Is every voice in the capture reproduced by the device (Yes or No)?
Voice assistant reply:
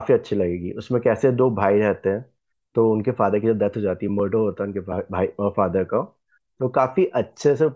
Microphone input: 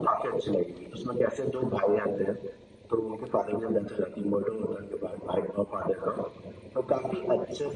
Yes